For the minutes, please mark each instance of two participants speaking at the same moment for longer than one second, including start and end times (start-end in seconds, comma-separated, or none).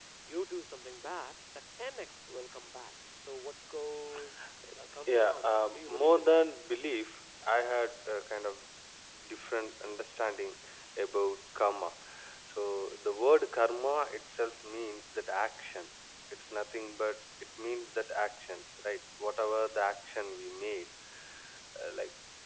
5.1-6.5